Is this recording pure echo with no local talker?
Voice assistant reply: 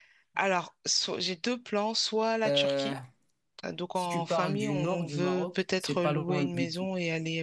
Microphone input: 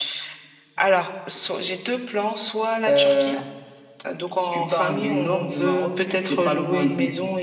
Yes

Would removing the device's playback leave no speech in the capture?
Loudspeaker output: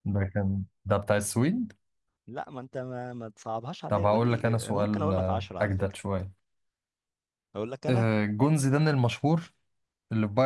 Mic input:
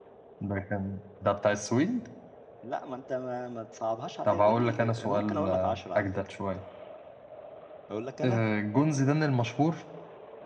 Yes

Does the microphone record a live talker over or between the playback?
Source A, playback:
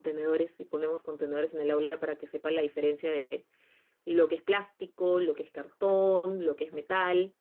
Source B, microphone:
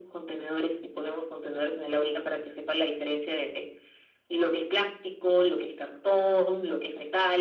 No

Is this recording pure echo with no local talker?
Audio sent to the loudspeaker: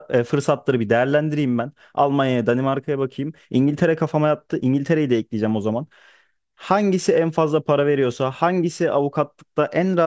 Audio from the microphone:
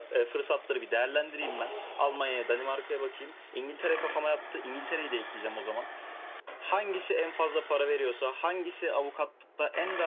Yes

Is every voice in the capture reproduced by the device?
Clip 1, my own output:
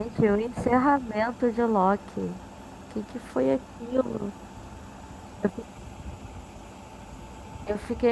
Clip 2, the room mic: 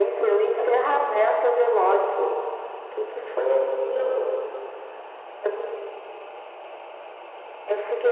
Yes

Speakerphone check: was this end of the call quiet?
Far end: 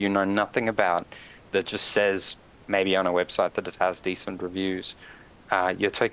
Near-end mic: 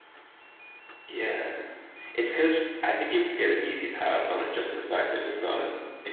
No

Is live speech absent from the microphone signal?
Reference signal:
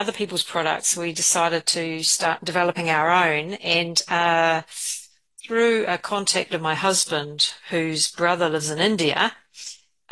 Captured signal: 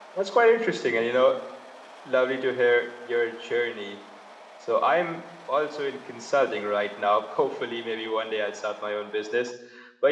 No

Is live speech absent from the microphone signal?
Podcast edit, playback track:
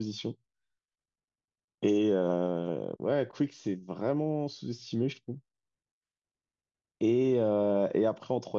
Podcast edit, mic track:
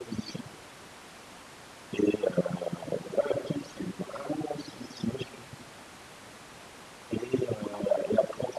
Yes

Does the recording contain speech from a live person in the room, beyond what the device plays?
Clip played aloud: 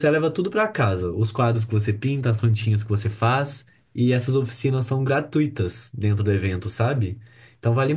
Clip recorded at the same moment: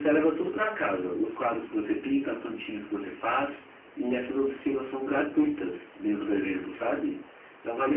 No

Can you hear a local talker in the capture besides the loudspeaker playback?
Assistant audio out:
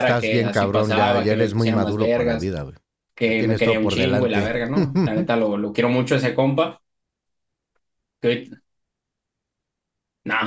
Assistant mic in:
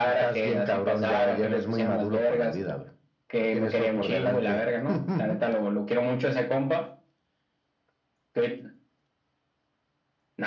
No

